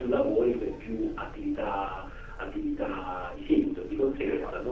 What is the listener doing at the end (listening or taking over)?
listening